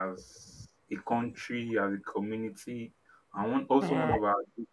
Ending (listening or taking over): listening